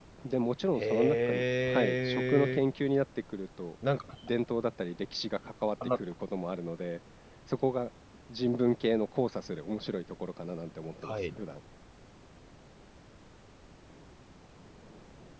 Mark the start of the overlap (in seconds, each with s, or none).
0.8 s